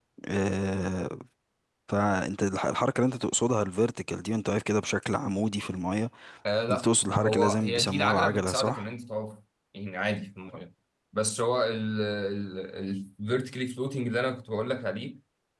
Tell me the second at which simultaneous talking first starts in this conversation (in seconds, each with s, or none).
6.7 s